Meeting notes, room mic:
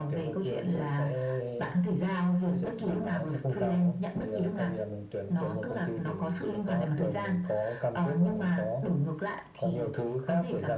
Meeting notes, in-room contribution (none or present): none